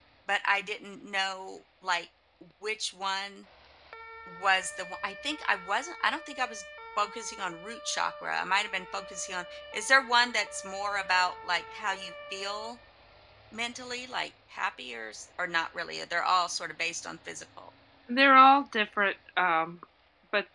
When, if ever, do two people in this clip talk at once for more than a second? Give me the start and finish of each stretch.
none

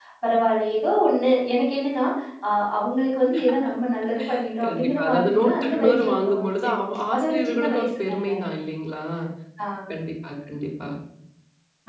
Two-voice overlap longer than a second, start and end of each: 4.6-6.7, 7.1-8.4

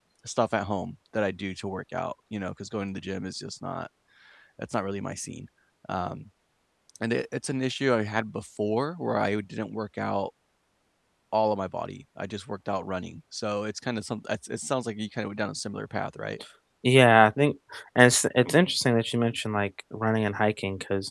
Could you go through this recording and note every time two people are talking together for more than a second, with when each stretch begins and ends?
none

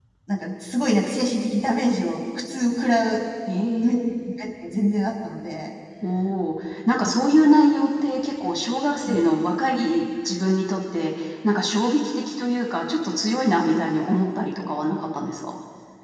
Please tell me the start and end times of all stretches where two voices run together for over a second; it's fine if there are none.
none

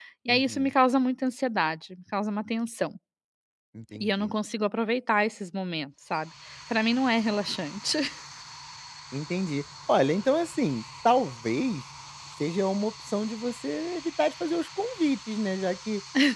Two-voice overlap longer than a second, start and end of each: none

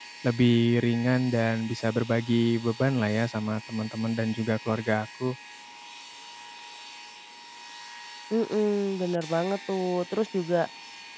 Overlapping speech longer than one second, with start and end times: none

